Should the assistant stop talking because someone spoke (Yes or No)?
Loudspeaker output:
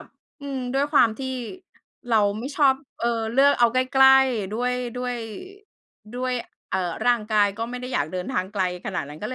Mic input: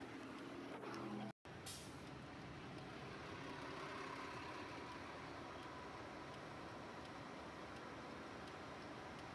No